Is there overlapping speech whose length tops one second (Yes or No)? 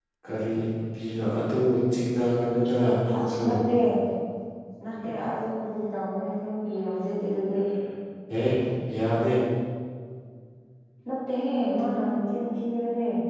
No